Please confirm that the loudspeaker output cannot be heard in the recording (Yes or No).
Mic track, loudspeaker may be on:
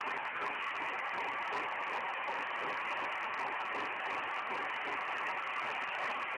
Yes